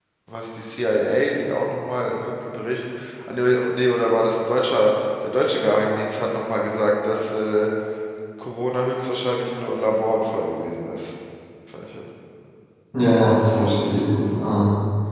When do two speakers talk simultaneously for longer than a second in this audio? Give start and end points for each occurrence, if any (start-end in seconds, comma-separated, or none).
none